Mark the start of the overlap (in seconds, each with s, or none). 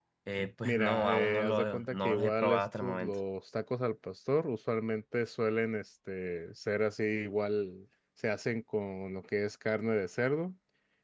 0.6 s